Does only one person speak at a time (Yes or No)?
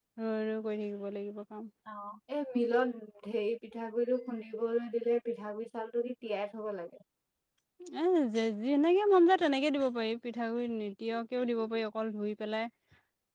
Yes